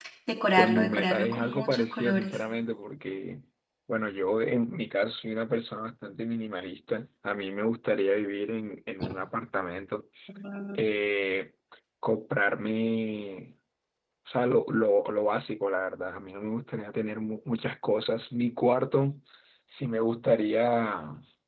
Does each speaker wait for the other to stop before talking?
No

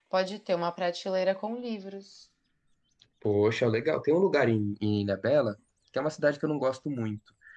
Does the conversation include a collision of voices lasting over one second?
No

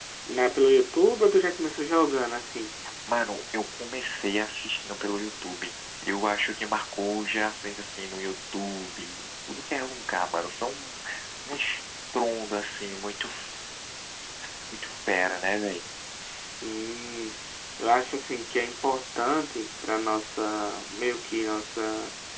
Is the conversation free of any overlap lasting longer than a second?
Yes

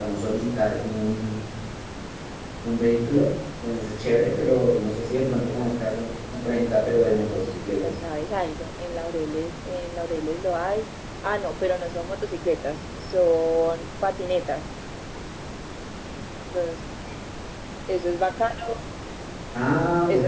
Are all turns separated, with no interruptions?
No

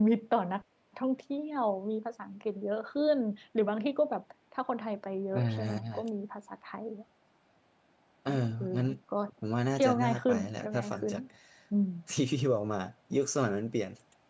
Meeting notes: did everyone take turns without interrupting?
No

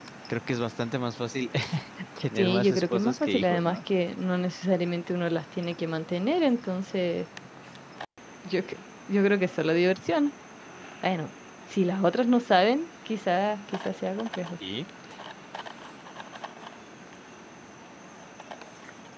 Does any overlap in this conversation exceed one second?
Yes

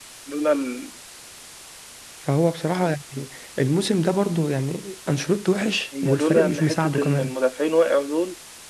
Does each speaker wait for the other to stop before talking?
No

